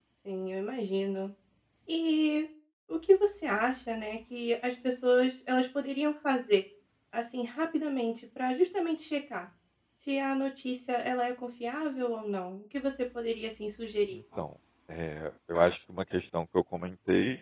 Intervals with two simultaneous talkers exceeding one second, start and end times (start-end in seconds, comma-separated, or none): none